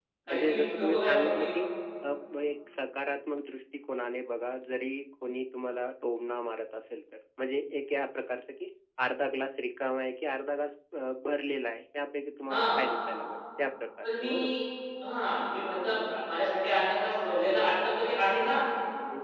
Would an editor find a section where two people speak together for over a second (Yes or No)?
Yes